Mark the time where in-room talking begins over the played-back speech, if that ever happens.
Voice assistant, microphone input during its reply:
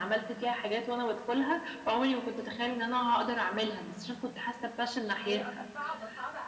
5.2 s

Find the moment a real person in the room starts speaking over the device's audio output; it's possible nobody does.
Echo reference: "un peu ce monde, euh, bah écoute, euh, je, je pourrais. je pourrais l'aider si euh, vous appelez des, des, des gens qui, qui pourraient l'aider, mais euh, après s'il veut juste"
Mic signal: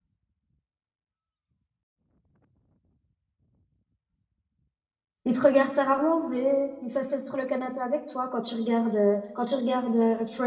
5.2 s

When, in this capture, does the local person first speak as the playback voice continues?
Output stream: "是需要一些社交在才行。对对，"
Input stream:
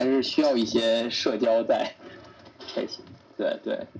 none

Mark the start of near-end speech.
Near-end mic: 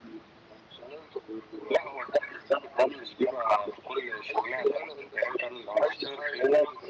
none

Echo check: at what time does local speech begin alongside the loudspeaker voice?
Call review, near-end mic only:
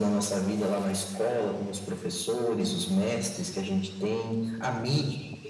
none

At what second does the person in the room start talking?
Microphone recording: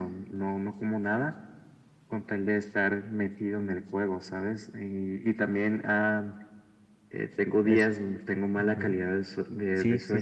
7.6 s

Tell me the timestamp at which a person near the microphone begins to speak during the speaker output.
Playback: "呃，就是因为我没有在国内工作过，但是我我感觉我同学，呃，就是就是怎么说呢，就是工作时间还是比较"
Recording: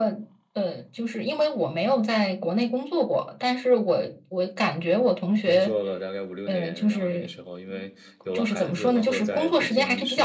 5.5 s

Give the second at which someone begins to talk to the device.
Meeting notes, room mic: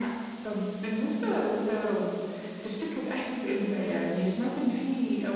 none

